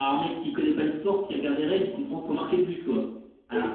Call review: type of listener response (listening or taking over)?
listening